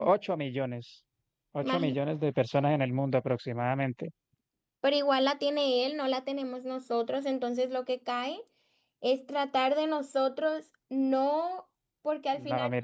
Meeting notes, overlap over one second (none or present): none